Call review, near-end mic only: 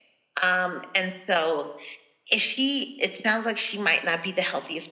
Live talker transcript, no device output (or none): none